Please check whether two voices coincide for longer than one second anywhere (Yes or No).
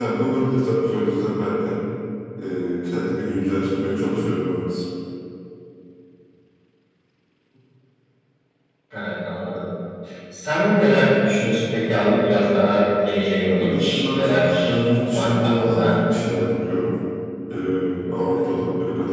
Yes